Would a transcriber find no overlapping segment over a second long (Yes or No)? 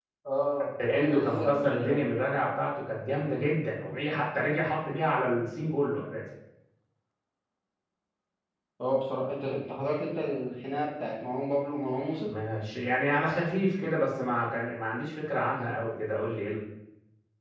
No